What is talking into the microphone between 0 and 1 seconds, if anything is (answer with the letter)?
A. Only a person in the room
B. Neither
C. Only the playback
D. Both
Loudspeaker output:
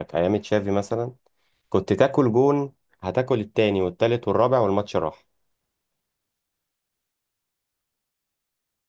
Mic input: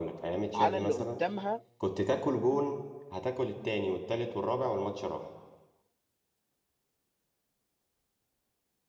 D